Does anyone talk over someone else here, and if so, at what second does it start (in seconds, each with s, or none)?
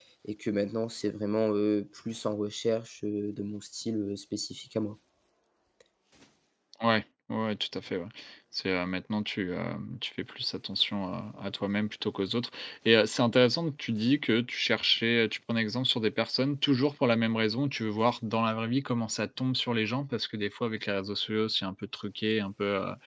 none